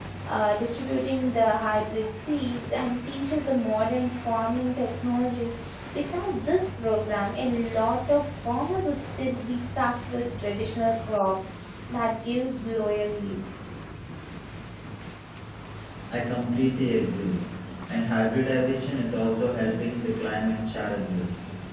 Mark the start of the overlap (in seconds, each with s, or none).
none